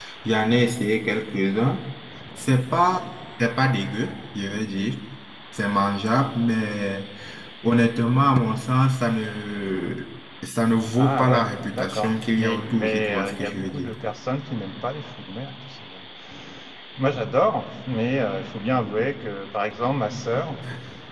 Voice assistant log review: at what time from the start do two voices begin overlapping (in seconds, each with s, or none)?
10.9 s